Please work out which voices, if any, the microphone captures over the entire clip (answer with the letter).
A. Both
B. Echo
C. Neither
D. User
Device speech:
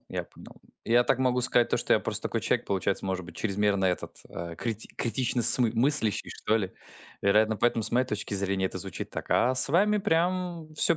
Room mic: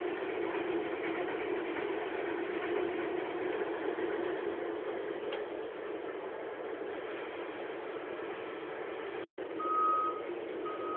C